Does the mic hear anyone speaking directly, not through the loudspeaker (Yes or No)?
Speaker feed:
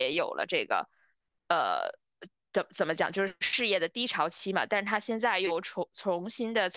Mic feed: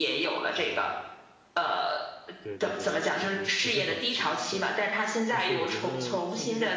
Yes